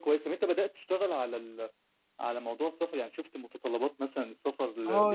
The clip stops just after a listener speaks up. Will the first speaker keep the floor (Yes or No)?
No